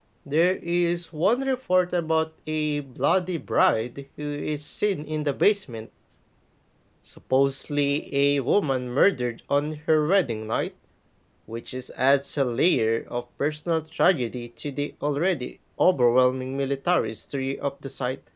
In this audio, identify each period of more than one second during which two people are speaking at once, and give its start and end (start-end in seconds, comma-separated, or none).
none